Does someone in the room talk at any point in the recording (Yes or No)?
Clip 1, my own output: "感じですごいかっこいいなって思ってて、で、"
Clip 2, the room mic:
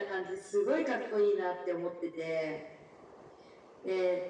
No